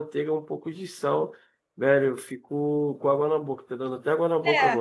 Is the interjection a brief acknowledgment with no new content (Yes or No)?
No